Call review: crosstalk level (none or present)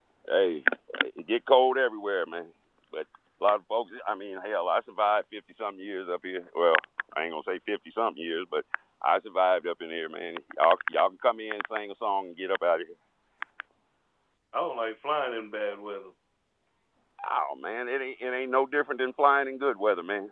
none